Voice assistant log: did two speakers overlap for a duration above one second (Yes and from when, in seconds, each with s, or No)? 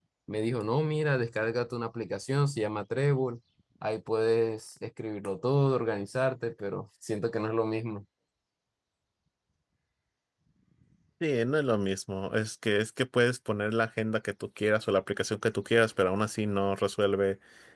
No